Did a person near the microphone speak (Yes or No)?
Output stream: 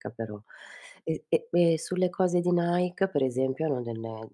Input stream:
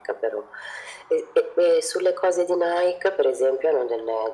No